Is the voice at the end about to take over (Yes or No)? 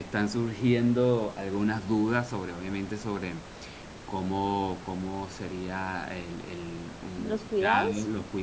No